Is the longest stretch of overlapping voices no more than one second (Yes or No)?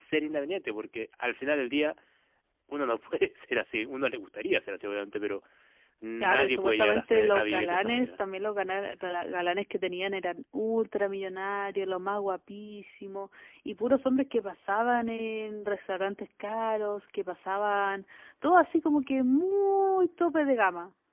No